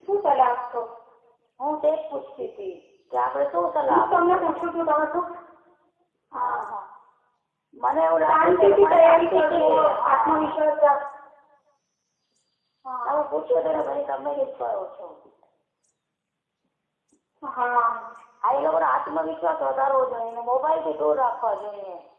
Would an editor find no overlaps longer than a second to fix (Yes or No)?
No